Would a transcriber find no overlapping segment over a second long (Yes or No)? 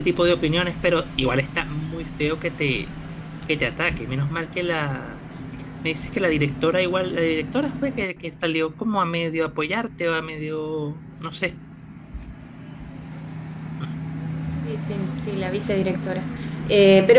Yes